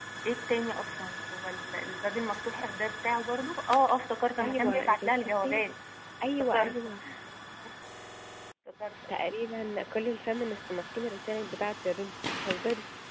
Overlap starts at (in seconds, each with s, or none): 4.4 s